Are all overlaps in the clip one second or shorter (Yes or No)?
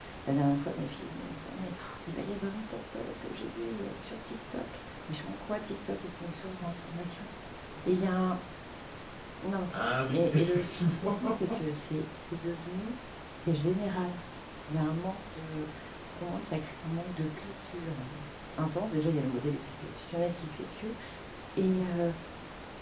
No